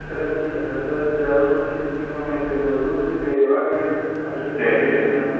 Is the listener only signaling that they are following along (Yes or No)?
Yes